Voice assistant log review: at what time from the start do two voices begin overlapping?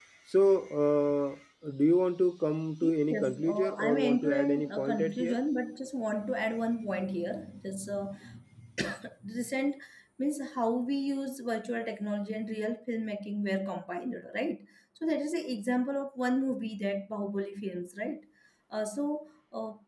3.1 s

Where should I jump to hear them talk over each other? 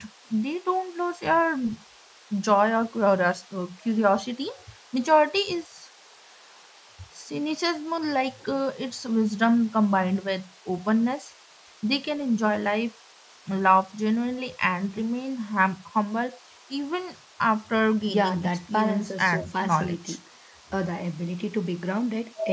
18.1 s

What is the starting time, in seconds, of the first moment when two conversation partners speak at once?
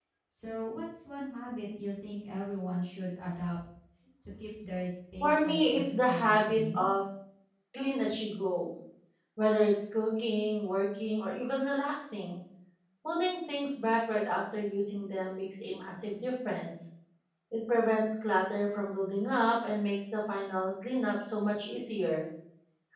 5.2 s

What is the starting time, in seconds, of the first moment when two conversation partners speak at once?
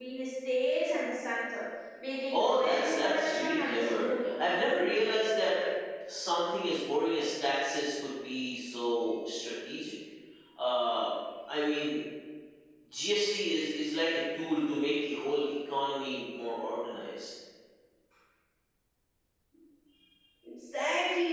2.3 s

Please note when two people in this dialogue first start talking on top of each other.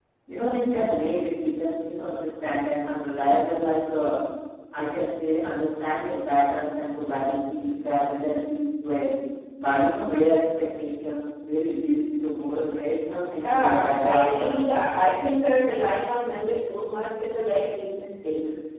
13.4 s

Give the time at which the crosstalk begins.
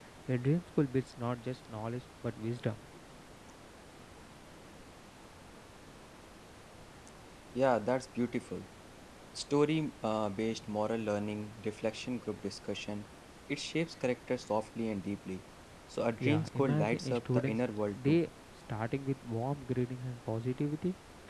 16.2 s

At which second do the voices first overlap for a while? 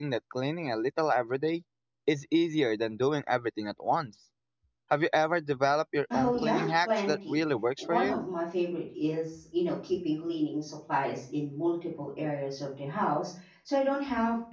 6.1 s

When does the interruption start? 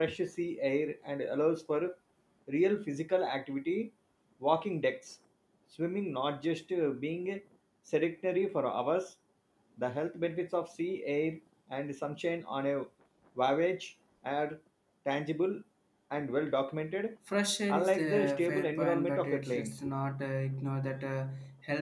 17.7 s

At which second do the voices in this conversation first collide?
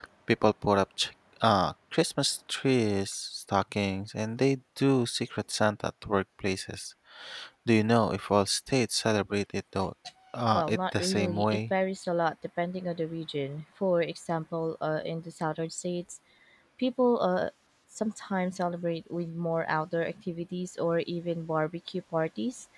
10.5 s

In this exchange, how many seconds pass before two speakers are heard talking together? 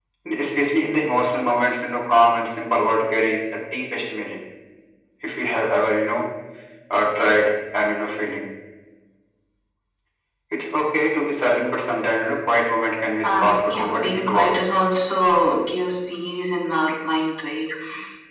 13.2 s

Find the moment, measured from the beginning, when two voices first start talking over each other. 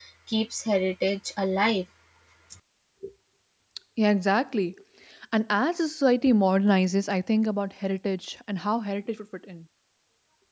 none

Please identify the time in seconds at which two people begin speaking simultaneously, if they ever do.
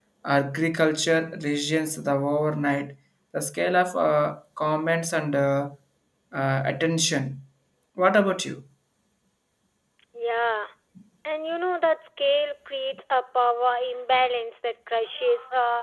none

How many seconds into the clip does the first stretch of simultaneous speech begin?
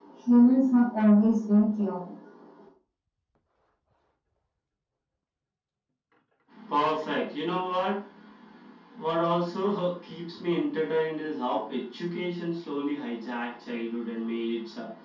none

